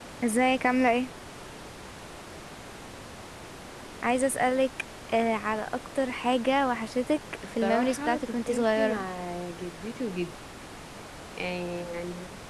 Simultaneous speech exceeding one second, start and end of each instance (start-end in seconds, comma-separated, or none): 7.6-9.0